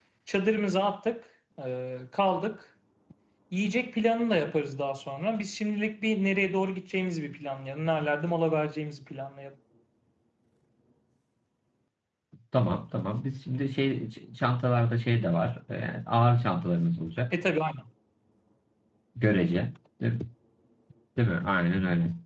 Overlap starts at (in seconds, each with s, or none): none